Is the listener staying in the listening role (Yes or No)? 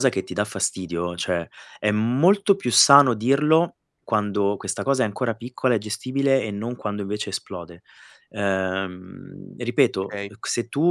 Yes